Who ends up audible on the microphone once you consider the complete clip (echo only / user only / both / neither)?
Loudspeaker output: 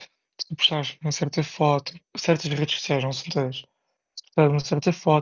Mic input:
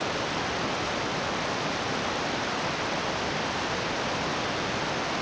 neither